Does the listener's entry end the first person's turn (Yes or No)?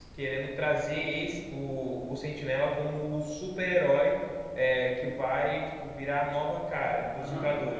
No